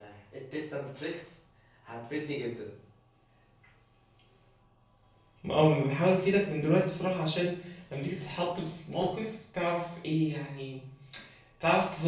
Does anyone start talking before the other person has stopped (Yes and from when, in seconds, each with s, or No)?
No